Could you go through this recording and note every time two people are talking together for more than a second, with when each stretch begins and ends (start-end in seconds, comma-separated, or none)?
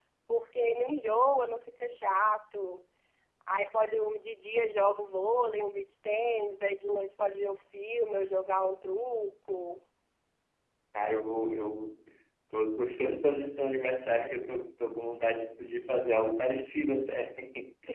none